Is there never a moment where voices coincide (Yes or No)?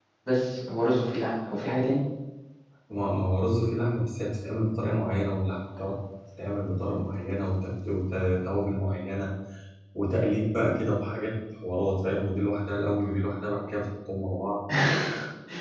Yes